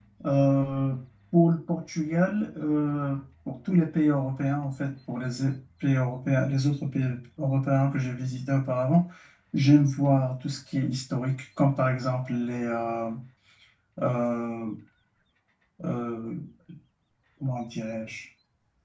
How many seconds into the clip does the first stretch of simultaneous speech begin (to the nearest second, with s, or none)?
none